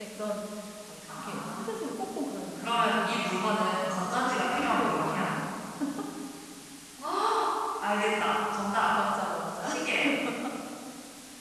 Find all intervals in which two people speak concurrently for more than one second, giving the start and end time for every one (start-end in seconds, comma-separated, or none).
2.6-5.3